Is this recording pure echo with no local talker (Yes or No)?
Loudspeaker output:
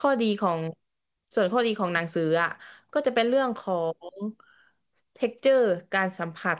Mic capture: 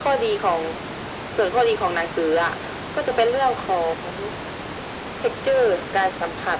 Yes